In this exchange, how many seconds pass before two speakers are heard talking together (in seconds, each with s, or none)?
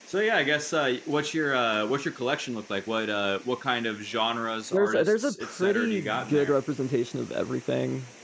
4.7 s